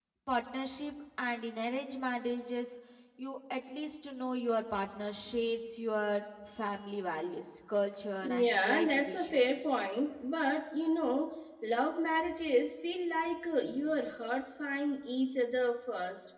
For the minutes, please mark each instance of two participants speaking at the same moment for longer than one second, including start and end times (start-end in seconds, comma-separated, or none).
8.2-9.4